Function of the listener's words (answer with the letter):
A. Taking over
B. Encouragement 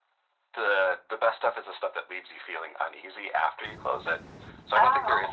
B